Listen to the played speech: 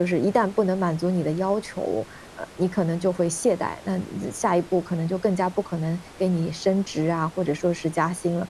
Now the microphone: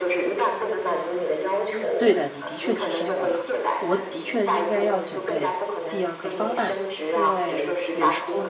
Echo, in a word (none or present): present